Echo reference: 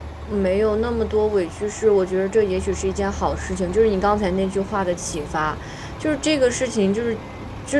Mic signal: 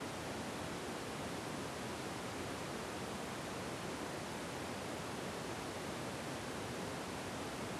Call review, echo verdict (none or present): none